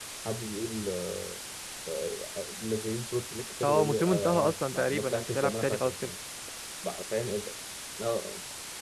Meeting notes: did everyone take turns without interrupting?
No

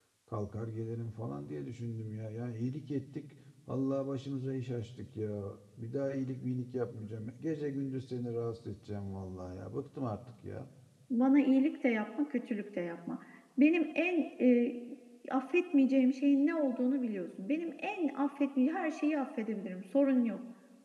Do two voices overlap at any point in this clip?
No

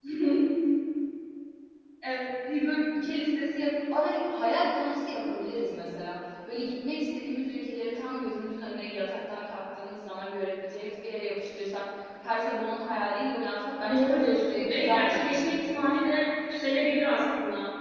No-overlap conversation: No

